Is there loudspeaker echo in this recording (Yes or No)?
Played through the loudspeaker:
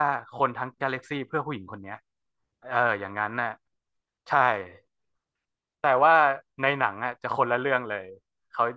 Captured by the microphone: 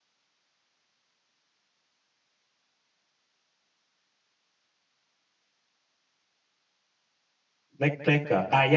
No